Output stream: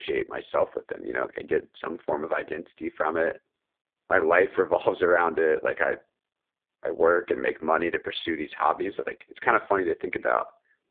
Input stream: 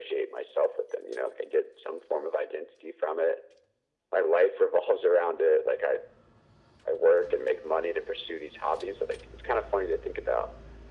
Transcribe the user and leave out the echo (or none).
none